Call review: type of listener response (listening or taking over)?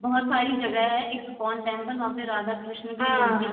taking over